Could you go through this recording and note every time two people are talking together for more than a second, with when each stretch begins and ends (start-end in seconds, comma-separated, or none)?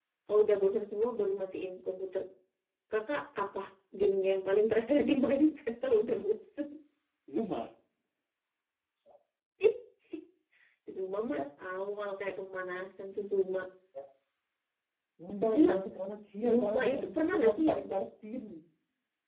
16.5-17.8